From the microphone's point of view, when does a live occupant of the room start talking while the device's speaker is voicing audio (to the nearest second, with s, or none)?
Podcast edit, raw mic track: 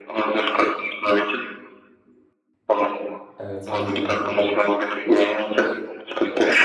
3 s